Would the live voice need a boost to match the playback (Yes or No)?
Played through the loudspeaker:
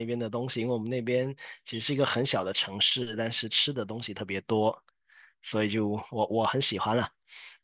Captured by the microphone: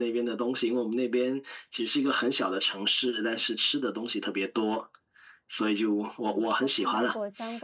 Yes